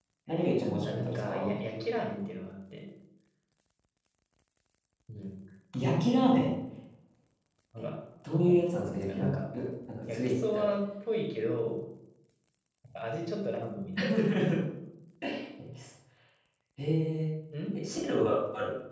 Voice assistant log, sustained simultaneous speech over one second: present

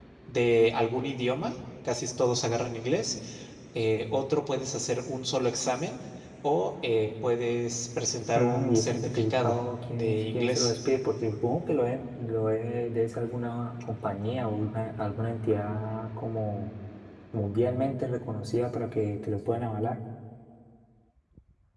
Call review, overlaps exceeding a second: present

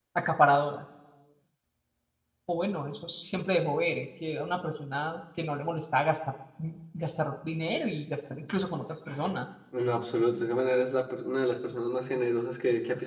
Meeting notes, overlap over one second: none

